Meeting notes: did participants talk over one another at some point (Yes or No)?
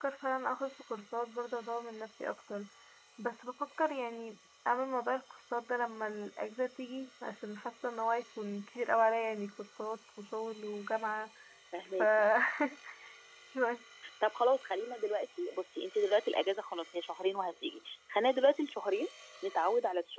No